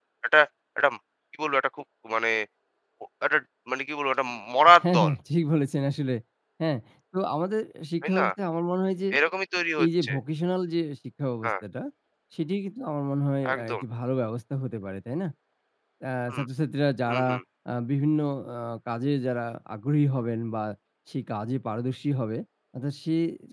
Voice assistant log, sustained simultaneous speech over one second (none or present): none